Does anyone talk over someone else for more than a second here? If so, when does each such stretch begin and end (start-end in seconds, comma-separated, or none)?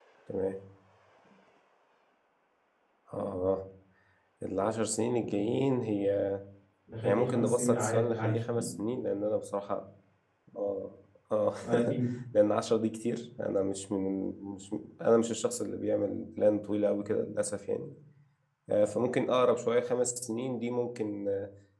7.0-8.4